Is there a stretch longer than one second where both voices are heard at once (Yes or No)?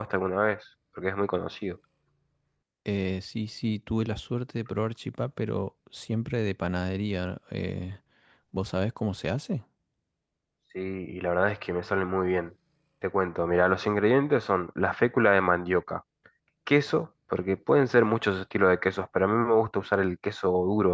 No